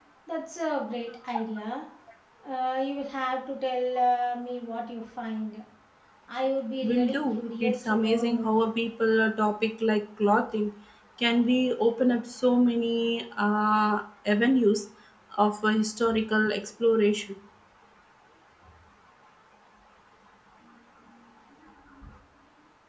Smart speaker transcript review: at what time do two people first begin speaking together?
6.8 s

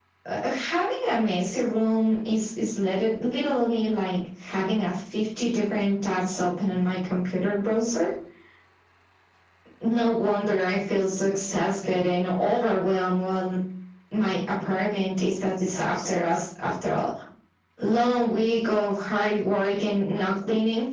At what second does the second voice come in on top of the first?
none

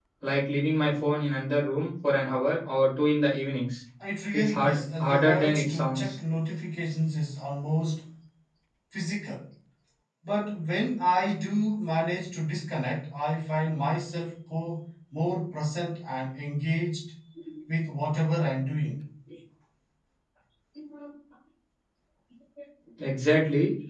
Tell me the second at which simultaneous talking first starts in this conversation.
4.3 s

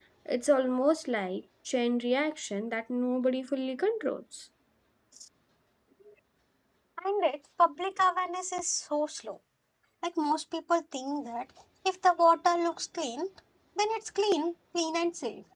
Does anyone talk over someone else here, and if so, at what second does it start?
none

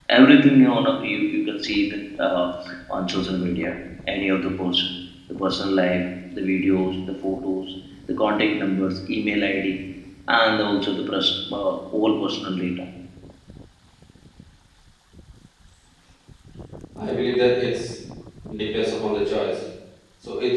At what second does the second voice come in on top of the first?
none

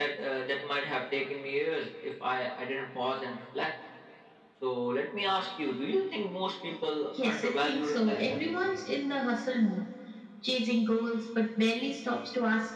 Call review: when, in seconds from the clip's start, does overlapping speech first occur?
7.1 s

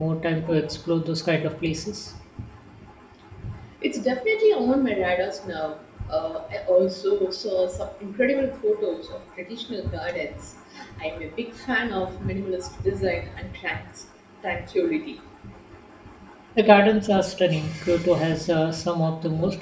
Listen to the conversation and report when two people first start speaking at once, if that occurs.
none

